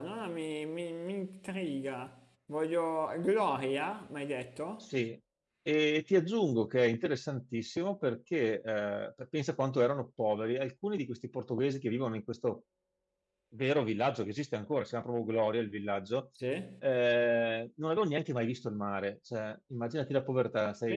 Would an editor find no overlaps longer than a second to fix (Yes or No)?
Yes